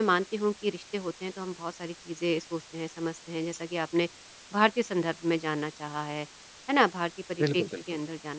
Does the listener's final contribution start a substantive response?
No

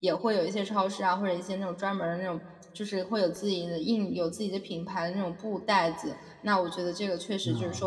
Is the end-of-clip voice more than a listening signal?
No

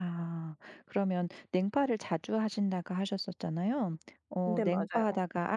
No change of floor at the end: Yes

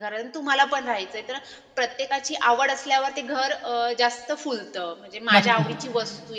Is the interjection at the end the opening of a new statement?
No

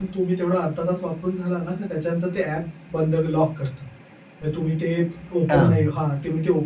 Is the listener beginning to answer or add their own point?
No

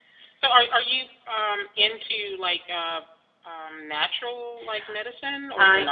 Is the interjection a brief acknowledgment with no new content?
No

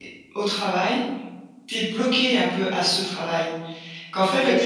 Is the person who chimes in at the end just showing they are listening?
Yes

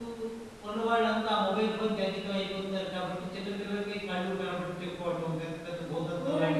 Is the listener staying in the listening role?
No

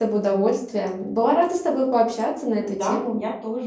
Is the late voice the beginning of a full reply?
Yes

